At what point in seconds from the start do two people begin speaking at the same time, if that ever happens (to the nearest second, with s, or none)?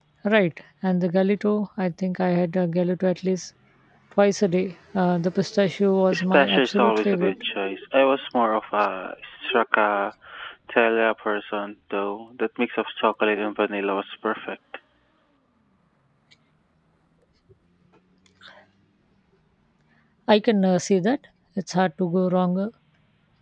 6 s